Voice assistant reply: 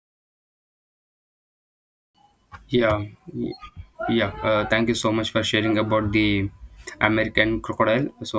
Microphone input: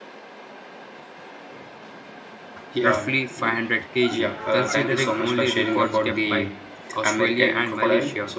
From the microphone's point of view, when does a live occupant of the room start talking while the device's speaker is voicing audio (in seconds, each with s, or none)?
2.8 s